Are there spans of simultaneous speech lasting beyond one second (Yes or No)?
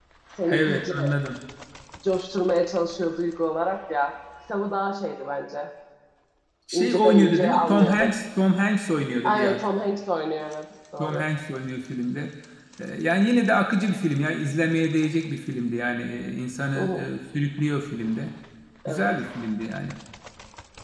Yes